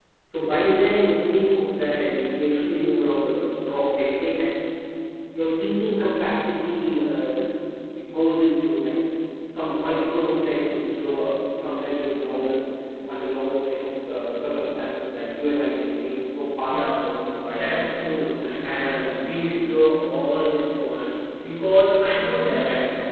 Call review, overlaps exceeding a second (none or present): none